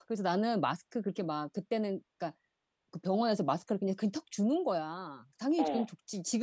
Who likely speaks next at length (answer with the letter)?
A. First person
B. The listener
A